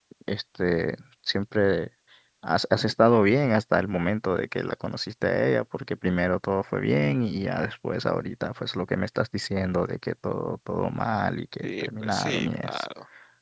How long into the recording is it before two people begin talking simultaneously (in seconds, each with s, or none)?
11.6 s